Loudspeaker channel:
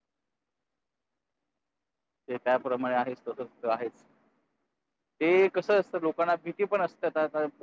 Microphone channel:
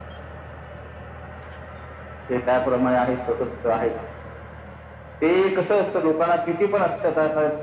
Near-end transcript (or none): none